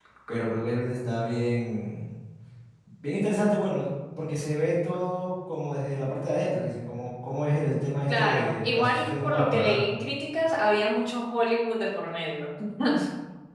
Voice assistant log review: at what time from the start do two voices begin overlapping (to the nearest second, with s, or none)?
8 s